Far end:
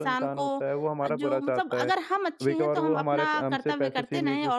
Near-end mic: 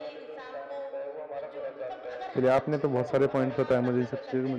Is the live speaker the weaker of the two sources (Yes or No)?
No